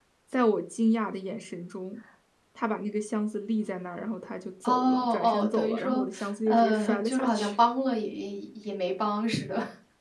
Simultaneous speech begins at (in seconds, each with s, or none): 4.6 s